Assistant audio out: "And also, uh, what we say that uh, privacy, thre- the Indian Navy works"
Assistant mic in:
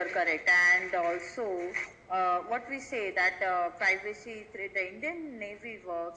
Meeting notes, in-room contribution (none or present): none